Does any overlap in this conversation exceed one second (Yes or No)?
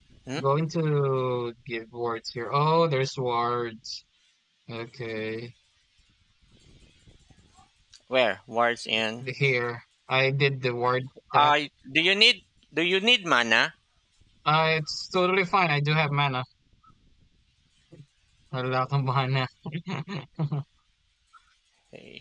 No